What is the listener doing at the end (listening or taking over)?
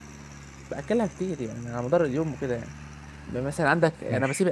listening